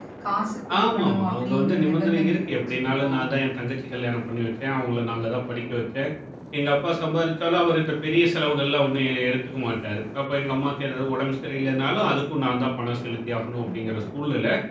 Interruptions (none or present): present